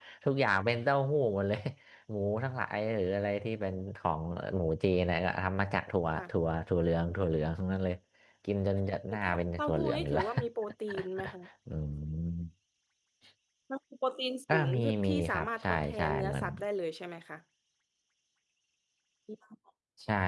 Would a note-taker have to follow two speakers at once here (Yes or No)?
Yes